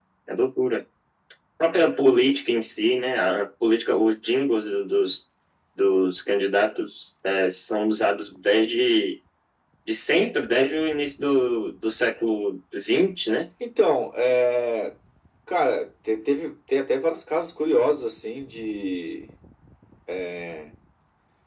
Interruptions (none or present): none